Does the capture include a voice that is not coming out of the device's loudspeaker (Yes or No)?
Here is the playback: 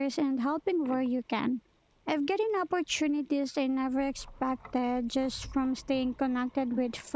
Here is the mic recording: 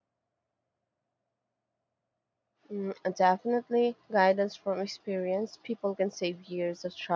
Yes